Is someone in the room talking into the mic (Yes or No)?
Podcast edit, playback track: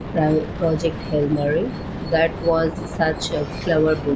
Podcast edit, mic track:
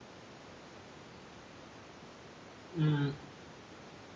Yes